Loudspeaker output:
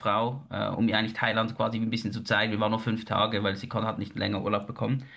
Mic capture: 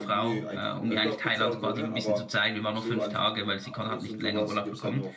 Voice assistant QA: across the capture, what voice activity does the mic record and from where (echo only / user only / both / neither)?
both